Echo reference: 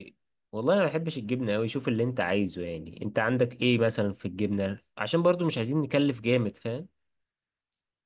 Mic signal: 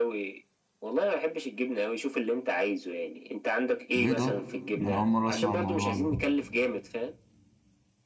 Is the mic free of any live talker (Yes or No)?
No